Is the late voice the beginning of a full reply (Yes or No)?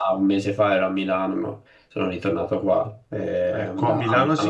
Yes